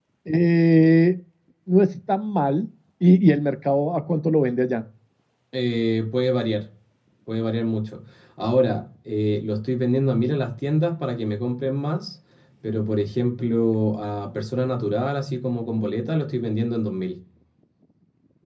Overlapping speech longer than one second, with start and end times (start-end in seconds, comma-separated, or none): none